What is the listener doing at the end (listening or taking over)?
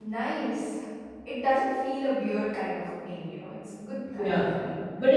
taking over